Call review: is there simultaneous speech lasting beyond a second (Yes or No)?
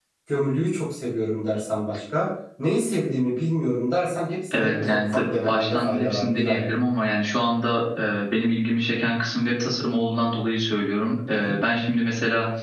Yes